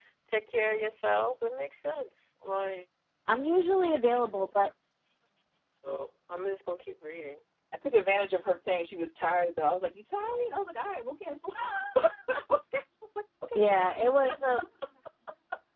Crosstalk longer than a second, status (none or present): none